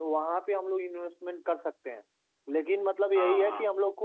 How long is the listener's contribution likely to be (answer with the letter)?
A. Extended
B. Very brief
B